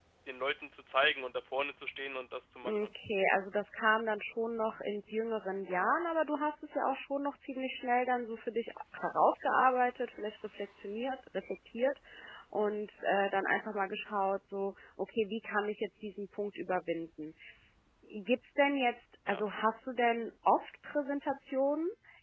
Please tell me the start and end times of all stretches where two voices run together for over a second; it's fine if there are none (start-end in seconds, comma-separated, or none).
none